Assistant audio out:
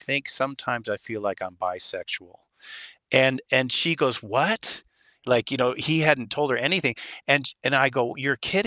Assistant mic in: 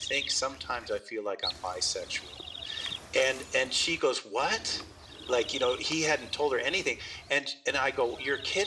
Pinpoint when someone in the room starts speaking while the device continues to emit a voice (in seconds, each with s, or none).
none